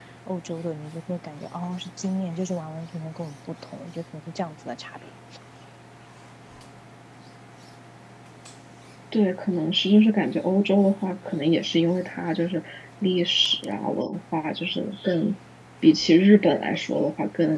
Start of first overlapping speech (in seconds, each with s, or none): none